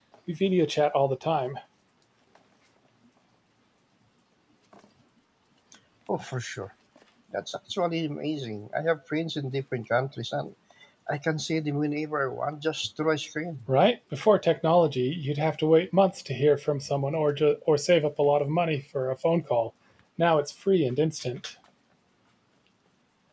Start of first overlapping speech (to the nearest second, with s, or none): none